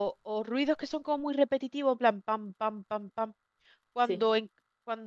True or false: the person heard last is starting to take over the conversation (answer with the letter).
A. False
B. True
A